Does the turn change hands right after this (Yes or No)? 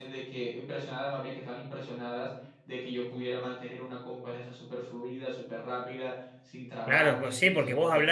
Yes